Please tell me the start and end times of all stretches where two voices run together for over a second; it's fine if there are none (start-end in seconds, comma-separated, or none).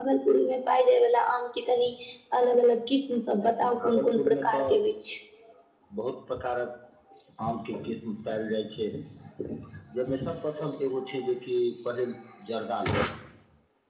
3.4-4.7